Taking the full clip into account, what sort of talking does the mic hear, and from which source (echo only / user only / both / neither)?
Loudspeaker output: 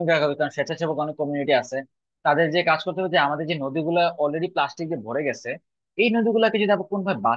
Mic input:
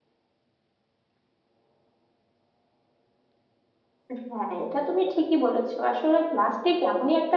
user only